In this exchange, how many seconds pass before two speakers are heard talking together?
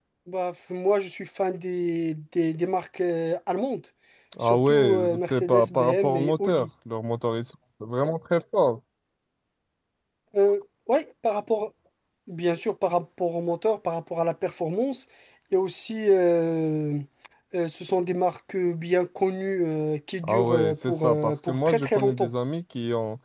4.4 s

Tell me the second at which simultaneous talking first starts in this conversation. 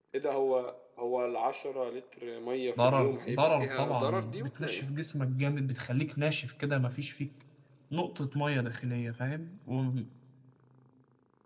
2.8 s

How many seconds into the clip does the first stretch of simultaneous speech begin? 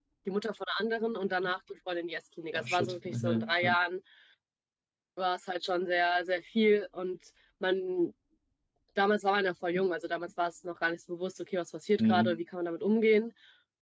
2.6 s

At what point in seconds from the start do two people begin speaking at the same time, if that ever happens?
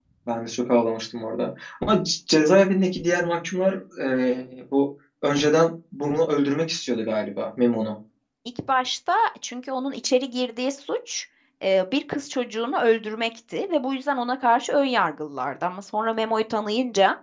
none

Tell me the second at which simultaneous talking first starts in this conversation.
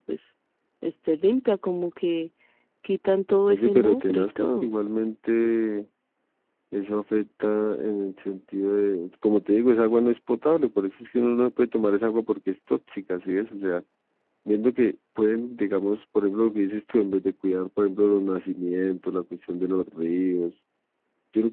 3.5 s

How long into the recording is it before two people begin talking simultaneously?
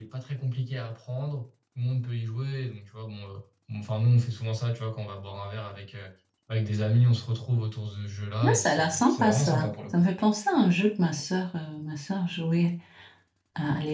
8.4 s

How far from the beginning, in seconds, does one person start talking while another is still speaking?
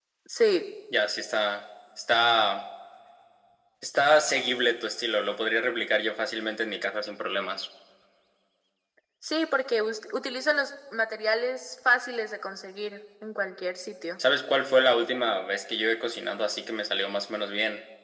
none

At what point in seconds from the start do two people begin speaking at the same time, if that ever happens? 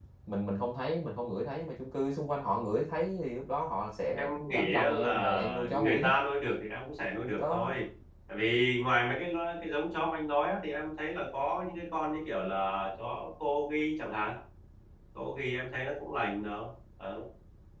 4.2 s

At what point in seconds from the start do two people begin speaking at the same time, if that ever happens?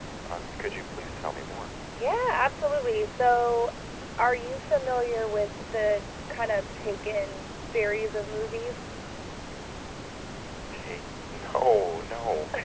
none

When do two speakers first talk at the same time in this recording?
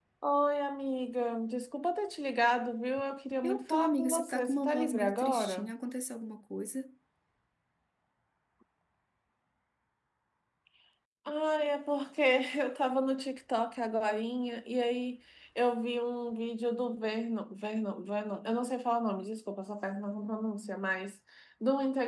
3.4 s

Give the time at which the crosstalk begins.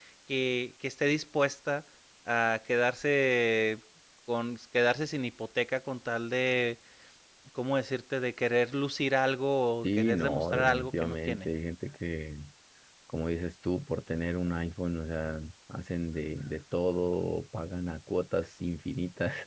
9.8 s

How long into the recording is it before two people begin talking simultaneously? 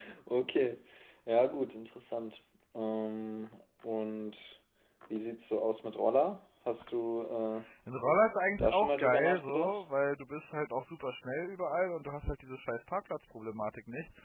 8.6 s

